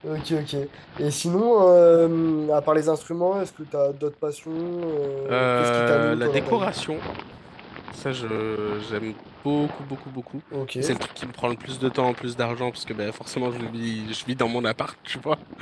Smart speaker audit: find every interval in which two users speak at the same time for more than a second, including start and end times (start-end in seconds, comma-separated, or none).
5.3-6.7